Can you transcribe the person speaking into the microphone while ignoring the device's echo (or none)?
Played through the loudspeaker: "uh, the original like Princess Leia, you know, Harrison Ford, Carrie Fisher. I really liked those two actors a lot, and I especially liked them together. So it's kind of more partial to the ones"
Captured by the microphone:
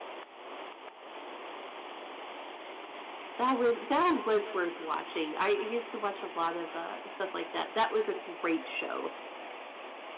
That was that one was worth watching. I used to watch a lot of, uh, stuff like that. That was a great show.